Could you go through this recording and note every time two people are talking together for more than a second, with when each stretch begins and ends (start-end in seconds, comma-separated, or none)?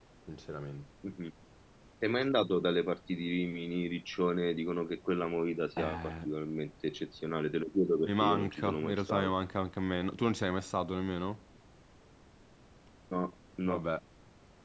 8.0-9.3